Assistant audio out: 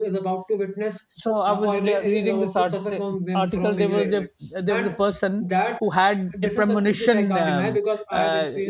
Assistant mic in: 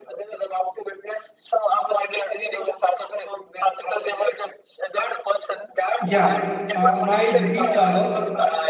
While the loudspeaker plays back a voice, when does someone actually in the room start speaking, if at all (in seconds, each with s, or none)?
6.0 s